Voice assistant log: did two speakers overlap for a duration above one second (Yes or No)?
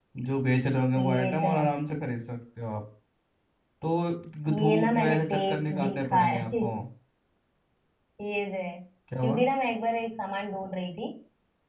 Yes